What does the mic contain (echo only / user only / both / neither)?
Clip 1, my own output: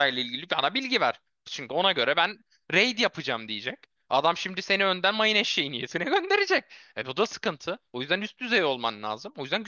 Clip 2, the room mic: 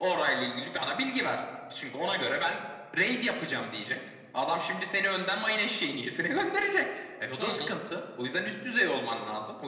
both